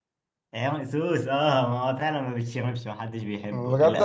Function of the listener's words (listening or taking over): taking over